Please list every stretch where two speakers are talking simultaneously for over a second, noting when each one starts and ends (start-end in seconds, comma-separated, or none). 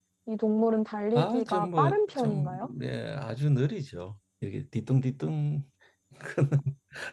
1.1-2.7